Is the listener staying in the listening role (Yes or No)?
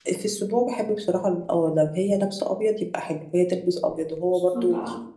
Yes